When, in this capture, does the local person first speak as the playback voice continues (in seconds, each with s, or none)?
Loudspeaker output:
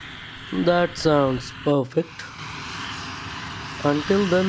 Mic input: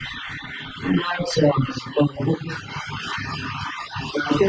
none